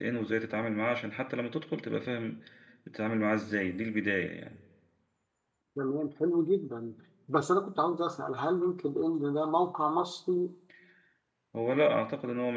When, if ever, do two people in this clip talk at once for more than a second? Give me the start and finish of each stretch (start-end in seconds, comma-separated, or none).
none